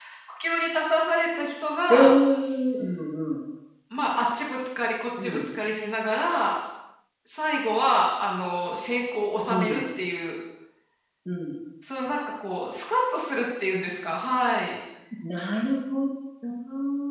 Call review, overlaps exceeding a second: none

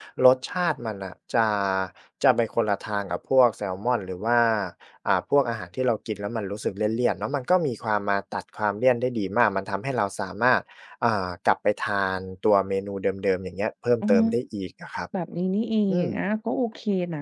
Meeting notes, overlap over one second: none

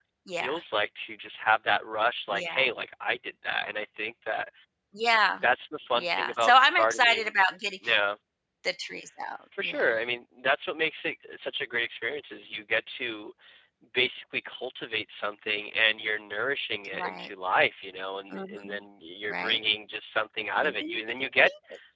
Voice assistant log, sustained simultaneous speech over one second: present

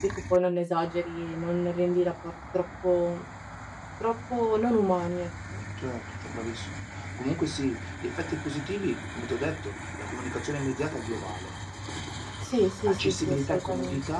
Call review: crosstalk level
present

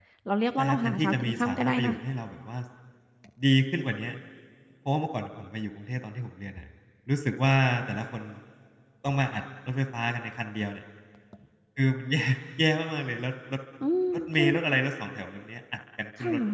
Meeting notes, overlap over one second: present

